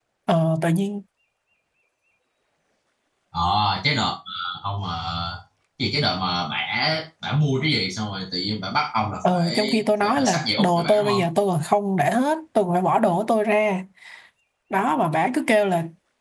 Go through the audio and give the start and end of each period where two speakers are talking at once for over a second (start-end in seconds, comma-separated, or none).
9.2-11.2